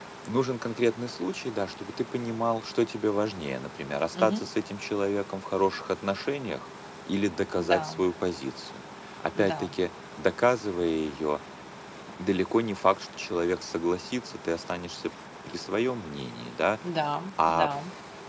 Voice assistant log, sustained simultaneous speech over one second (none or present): none